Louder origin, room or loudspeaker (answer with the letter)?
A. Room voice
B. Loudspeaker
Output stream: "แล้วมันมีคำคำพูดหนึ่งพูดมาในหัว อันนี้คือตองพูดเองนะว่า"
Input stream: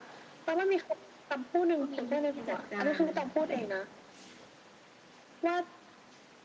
B